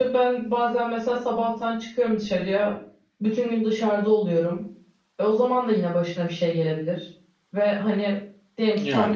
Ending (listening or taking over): listening